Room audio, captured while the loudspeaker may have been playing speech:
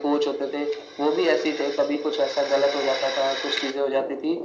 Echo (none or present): present